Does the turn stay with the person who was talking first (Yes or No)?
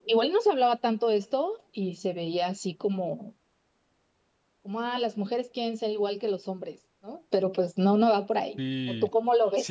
No